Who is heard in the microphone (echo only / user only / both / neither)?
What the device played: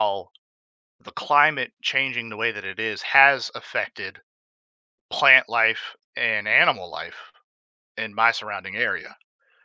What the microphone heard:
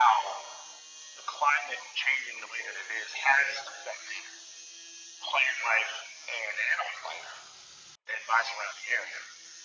echo only